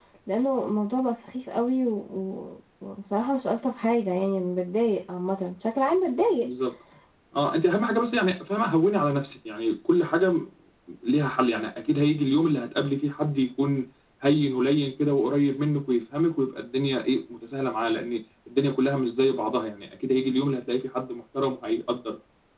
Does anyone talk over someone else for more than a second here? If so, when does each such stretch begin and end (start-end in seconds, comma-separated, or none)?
none